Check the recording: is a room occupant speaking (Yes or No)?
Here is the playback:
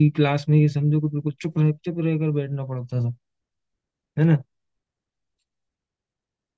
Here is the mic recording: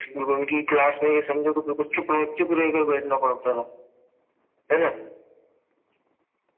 No